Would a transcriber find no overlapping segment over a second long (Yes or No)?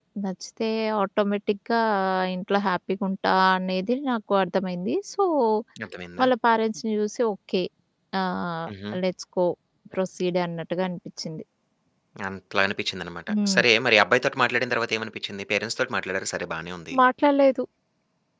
Yes